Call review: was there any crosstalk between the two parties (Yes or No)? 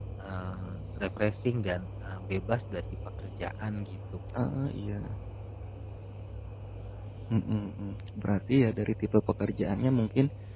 No